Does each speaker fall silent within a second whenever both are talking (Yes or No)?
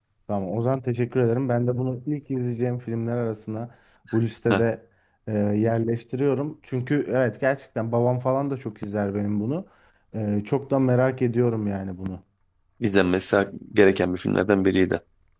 Yes